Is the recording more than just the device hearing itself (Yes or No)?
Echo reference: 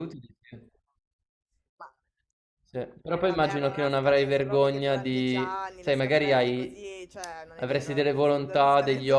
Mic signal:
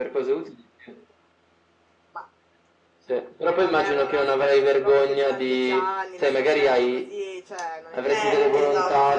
Yes